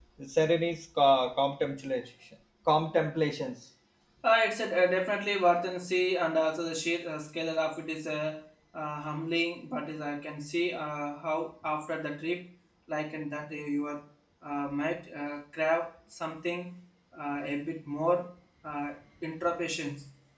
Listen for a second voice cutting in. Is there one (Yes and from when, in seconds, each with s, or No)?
No